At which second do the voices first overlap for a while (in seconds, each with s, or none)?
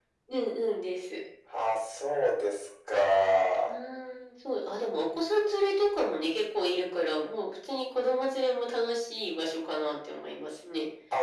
none